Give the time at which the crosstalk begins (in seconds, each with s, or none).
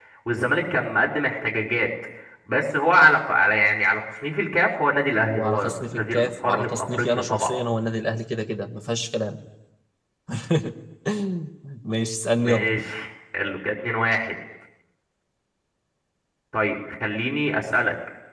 5.2 s